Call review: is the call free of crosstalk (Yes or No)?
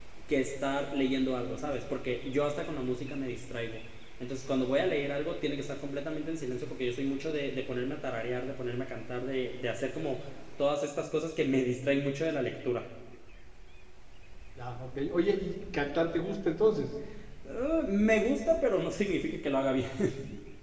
Yes